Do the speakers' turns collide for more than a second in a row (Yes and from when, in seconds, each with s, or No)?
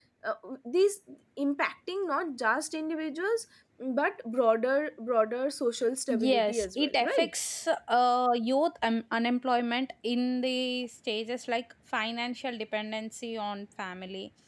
Yes, from 6.1 s